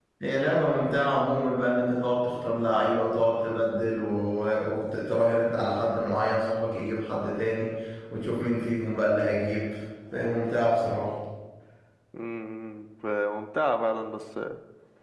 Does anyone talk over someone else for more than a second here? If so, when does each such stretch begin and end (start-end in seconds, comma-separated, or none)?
none